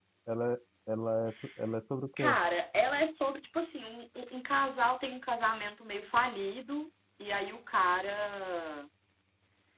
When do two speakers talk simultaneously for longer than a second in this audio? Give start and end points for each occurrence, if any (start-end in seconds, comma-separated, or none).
none